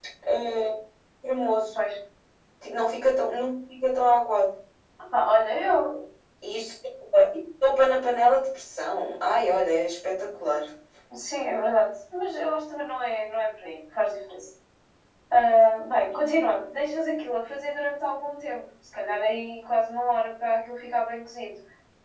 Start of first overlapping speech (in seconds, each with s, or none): none